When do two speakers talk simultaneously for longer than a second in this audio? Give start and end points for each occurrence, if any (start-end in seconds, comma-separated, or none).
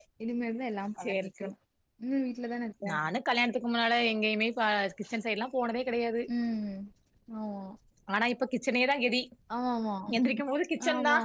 none